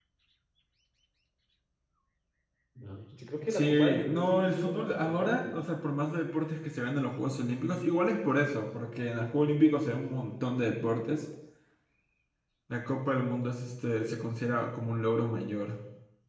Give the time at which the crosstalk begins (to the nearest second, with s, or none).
3 s